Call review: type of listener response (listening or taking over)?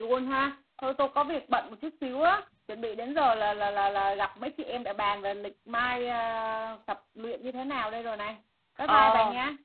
taking over